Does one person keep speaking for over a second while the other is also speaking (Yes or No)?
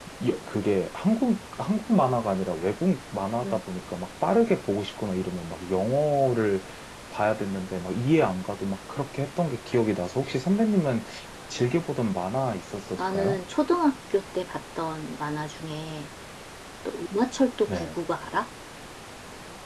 No